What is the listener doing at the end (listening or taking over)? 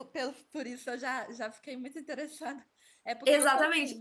taking over